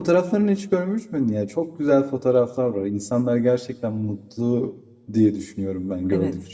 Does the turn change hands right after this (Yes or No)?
Yes